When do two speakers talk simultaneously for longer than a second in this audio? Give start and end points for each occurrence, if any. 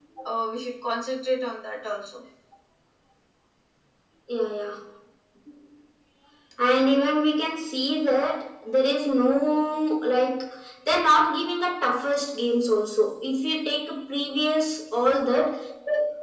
none

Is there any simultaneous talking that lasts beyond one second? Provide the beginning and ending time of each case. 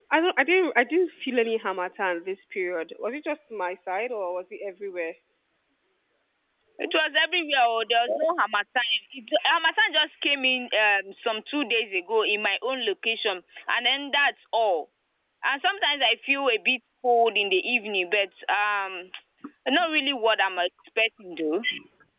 none

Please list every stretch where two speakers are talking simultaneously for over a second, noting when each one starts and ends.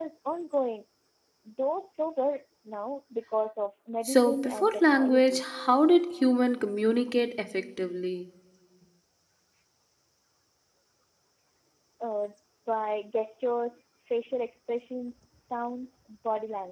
4.0-5.4

